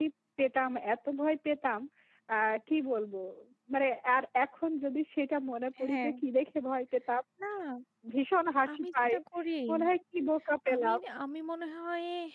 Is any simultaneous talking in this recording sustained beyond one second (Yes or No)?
No